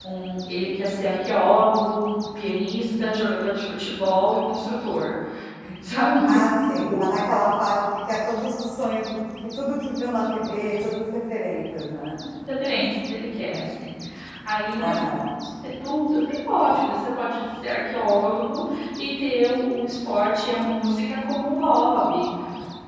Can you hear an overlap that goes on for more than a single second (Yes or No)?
No